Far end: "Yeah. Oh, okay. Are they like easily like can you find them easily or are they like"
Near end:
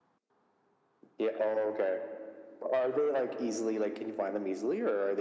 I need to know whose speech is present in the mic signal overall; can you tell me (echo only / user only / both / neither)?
echo only